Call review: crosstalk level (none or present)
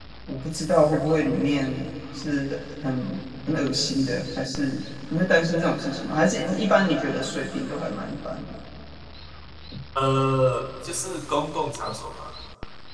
none